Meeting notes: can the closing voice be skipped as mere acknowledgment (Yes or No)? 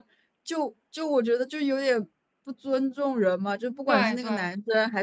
Yes